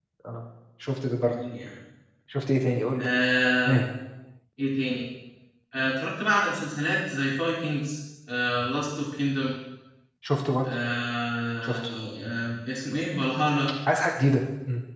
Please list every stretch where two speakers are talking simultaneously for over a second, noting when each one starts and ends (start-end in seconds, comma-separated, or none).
none